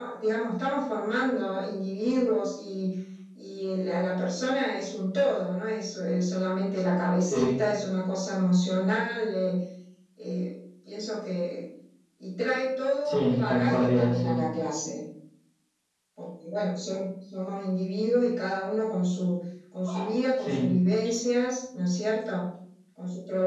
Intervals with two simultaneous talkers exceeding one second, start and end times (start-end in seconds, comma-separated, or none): 13.0-14.4